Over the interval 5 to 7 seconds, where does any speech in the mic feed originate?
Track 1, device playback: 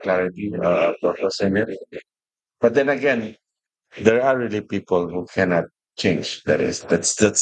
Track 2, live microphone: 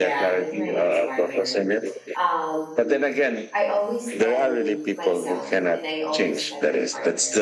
both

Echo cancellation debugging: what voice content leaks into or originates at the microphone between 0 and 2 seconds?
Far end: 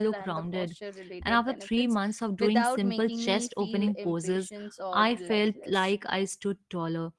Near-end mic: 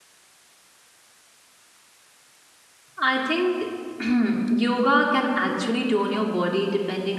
neither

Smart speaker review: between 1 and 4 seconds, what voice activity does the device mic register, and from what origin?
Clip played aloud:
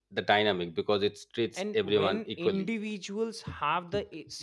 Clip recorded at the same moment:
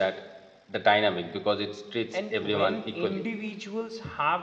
echo only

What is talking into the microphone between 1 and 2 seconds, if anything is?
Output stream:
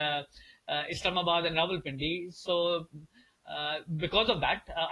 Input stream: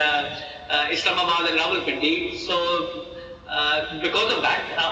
echo only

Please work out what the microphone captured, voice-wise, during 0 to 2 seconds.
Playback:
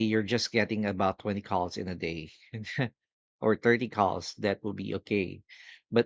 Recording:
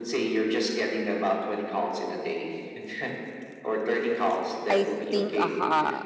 echo only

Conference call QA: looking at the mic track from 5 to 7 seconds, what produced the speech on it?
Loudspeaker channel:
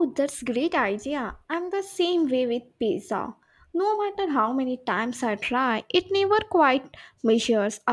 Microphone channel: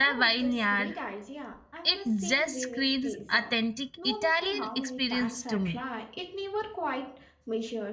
both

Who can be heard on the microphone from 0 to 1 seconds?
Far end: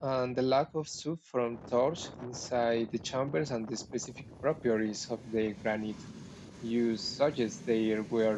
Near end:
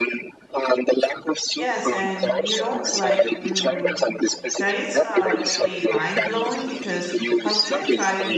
echo only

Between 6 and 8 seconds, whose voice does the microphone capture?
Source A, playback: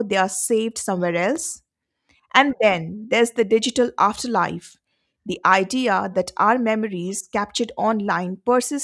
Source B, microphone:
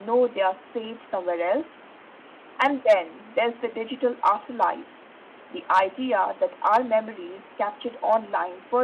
echo only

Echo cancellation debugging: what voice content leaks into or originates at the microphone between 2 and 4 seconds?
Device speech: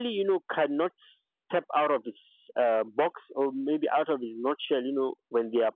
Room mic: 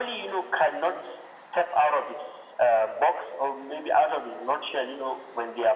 echo only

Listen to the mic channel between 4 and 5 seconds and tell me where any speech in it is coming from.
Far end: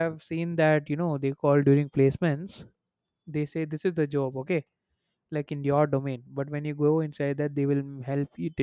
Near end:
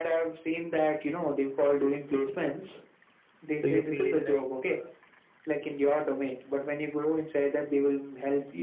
both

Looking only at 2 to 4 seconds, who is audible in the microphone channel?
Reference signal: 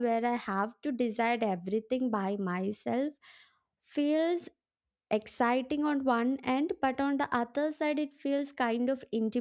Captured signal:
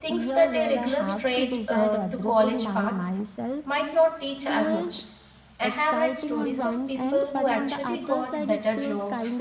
both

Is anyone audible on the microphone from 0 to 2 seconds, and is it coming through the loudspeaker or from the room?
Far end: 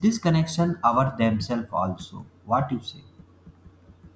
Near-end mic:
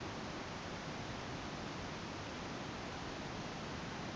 neither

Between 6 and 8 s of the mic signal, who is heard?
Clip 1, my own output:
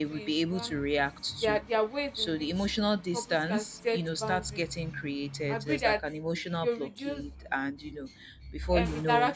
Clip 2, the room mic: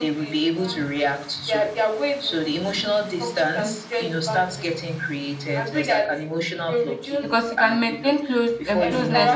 both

